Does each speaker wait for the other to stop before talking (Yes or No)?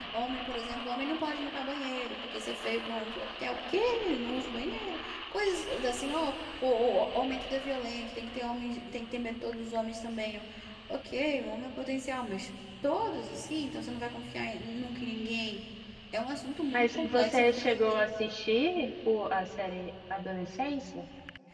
No